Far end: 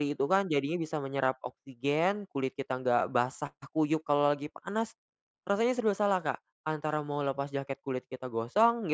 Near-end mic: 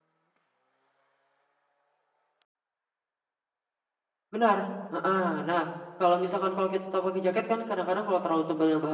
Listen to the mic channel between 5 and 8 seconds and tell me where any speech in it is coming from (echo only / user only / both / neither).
user only